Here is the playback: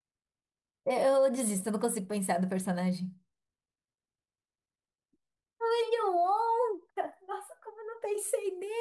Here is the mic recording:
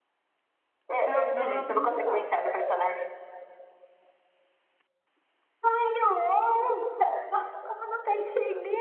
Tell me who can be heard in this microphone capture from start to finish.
both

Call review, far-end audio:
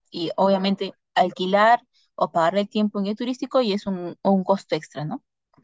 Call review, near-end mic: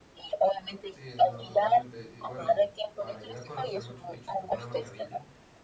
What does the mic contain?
both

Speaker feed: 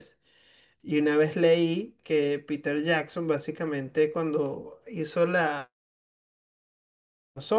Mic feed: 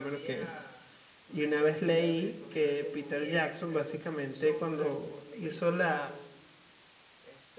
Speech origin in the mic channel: both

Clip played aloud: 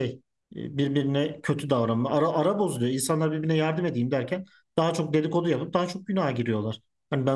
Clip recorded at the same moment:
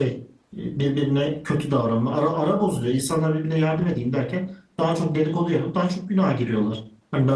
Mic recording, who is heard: echo only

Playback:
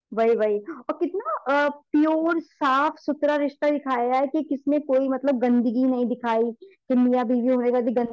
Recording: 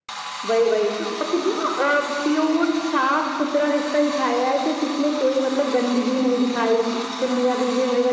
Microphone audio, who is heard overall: echo only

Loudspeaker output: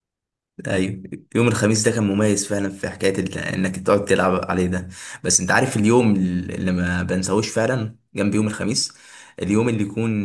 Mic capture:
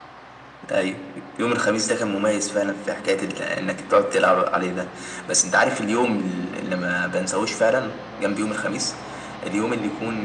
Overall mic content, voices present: echo only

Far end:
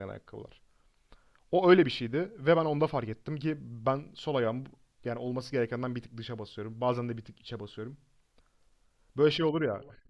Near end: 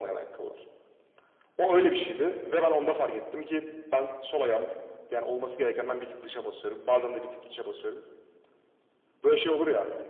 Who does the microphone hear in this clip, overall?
echo only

